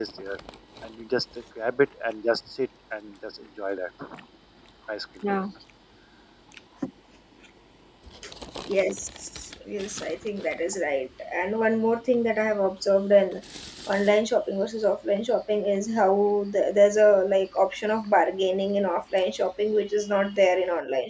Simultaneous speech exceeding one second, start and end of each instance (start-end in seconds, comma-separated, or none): none